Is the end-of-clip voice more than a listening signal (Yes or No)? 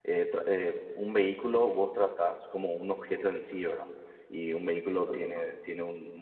No